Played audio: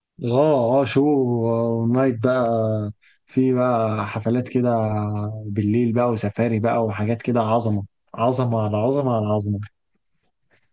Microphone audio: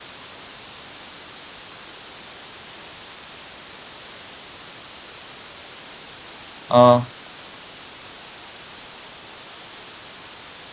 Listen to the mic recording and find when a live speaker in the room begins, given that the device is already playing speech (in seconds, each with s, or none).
6.7 s